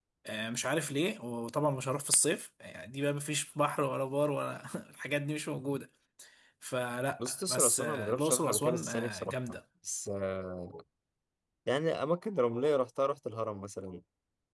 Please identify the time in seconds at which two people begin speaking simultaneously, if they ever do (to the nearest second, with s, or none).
7 s